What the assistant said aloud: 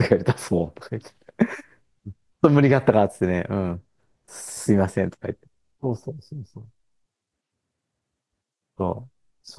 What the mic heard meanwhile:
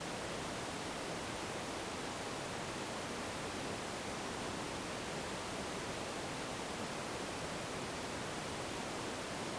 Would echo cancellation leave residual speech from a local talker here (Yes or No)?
No